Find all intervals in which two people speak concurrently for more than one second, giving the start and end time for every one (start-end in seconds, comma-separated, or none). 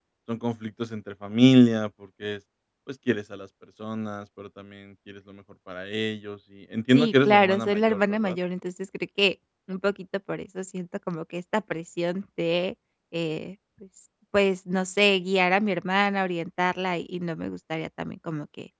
6.9-8.4